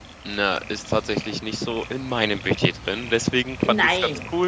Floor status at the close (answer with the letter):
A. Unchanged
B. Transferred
A